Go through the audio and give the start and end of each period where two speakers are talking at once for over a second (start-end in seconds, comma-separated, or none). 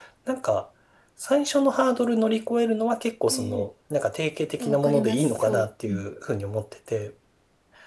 4.6-6.1